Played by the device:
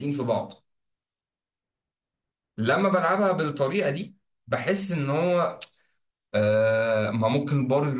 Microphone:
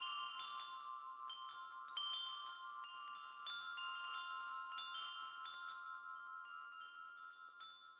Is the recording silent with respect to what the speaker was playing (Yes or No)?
Yes